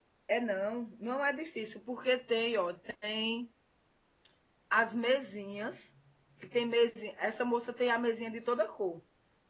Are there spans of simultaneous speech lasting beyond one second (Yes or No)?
No